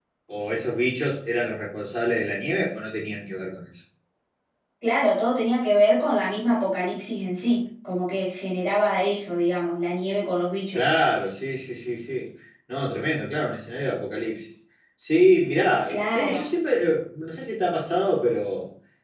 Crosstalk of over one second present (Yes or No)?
No